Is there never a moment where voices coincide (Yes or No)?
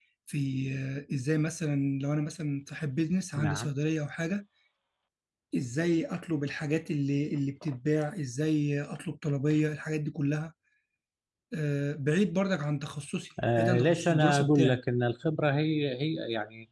No